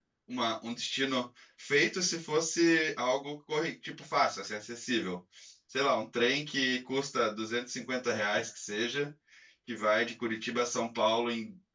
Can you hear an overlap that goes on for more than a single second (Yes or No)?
No